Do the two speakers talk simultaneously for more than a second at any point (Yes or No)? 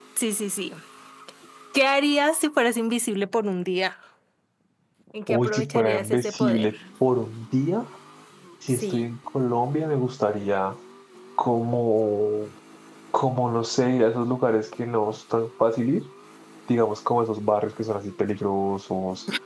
Yes